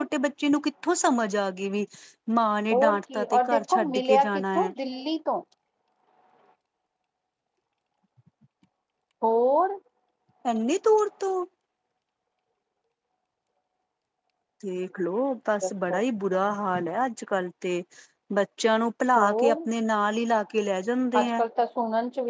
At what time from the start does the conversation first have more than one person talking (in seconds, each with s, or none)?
2.7 s